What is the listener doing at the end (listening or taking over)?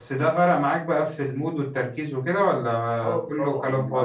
taking over